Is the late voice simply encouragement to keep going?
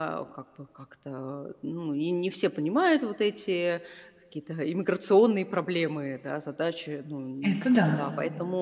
Yes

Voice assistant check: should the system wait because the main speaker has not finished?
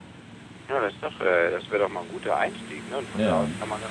Yes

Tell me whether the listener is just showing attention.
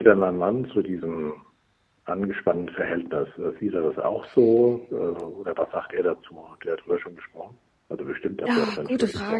No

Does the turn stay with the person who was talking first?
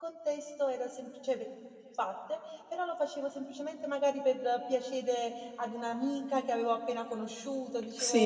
No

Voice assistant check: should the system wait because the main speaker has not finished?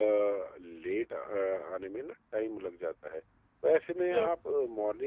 Yes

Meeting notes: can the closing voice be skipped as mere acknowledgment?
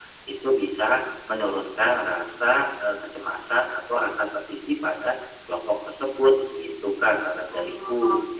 No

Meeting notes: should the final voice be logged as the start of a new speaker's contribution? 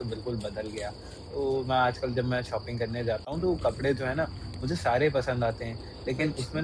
No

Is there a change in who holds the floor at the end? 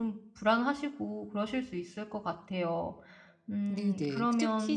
Yes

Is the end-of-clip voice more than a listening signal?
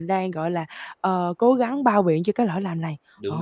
Yes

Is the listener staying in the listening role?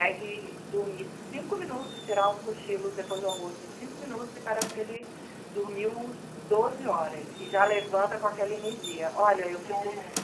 Yes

